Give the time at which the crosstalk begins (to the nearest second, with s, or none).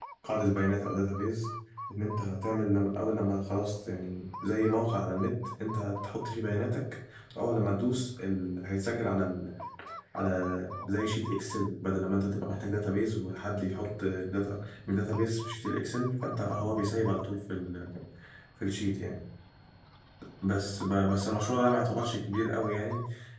none